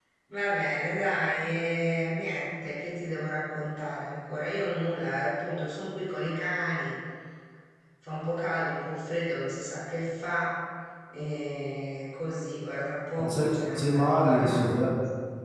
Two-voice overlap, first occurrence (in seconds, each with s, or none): 13.2 s